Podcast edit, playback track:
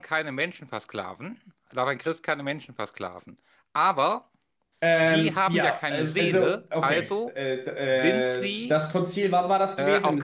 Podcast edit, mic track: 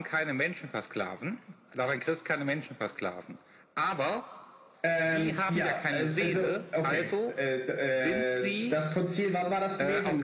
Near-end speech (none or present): none